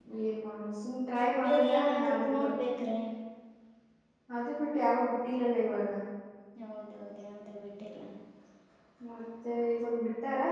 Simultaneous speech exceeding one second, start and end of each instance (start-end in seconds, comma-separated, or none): 1.4-2.7